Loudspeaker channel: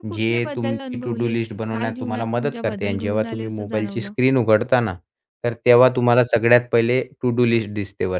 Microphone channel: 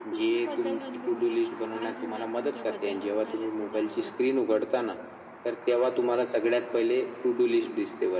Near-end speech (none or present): none